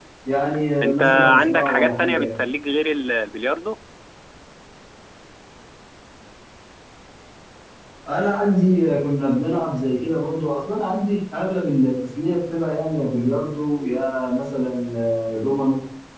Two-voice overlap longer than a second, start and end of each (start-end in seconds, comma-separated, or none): 0.8-2.4